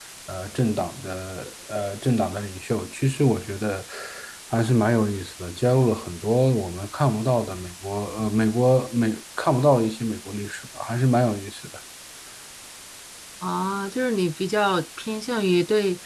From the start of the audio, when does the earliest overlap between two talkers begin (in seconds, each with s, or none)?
none